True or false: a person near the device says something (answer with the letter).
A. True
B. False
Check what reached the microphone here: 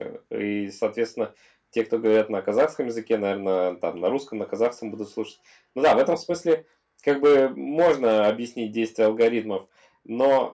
A